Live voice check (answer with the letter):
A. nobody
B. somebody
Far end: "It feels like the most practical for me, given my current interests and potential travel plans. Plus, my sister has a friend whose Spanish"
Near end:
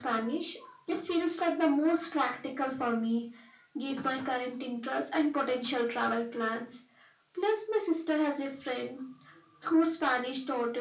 A